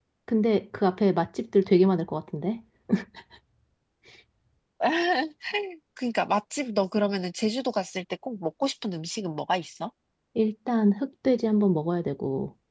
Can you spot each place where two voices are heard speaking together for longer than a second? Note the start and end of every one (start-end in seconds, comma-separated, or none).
none